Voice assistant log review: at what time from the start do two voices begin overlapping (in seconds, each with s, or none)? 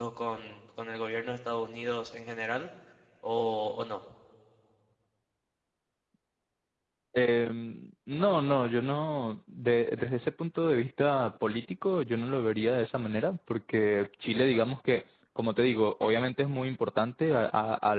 none